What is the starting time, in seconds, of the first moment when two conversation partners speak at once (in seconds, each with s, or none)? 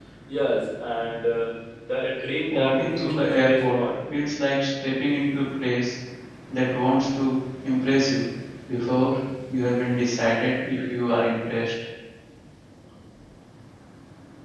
2.5 s